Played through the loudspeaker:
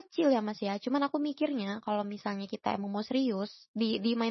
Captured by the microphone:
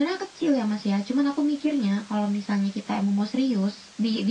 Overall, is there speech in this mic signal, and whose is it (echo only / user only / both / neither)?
echo only